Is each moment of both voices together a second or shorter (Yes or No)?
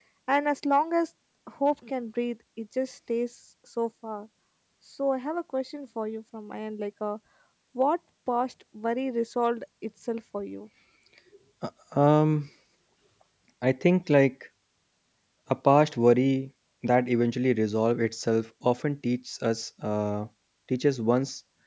Yes